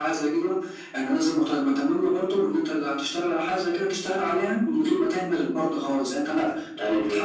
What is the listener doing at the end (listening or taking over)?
listening